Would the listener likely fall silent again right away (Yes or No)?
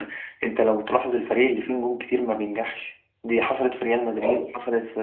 Yes